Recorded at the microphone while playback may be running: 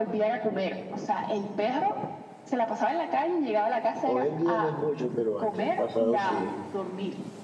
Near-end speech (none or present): present